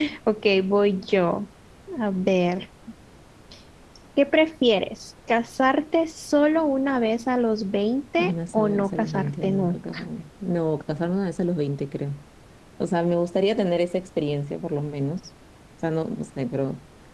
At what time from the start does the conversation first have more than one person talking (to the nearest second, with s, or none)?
8 s